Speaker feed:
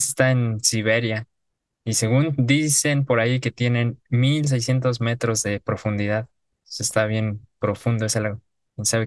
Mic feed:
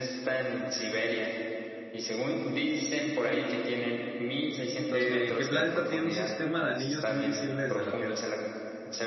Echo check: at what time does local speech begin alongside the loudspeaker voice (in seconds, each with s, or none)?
4.9 s